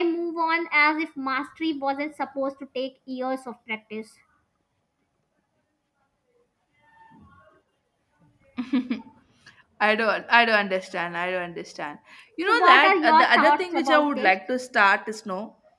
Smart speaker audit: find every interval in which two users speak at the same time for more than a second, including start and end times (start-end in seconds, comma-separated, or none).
12.5-14.3